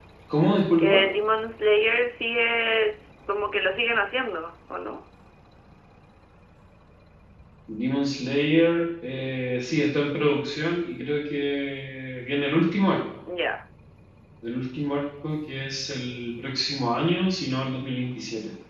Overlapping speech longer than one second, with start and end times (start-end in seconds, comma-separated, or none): none